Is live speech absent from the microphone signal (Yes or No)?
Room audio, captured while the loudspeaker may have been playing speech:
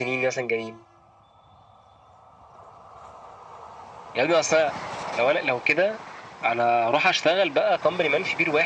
Yes